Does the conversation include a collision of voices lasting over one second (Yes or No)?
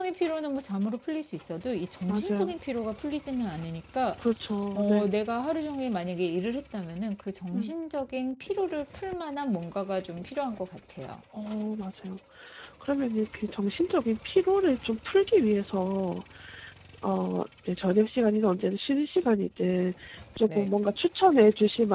No